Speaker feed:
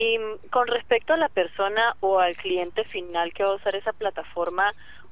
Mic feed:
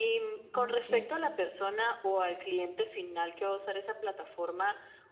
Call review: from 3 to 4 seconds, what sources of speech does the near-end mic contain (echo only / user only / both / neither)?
echo only